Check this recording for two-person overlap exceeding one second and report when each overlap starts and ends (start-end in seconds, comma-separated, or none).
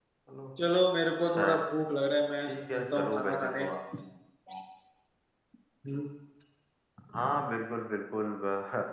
2.4-3.7